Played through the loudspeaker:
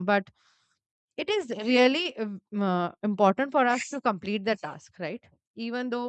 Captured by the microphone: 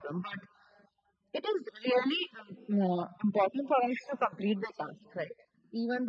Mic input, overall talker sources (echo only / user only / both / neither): echo only